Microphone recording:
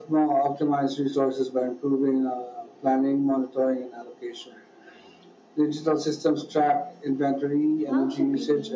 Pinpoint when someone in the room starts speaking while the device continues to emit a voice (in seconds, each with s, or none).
7.8 s